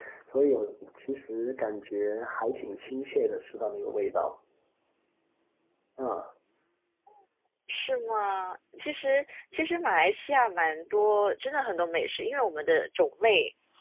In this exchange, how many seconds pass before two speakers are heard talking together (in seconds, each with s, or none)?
none